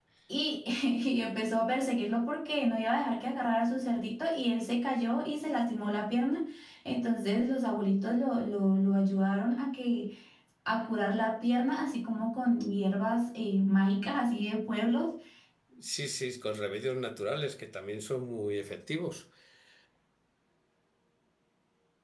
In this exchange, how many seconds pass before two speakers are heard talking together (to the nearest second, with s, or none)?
none